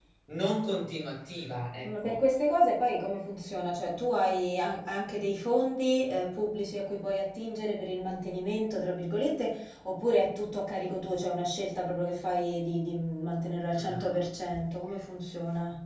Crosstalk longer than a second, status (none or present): none